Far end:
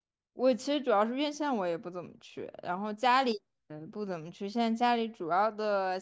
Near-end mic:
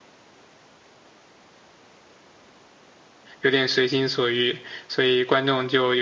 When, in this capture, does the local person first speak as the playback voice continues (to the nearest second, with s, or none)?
3 s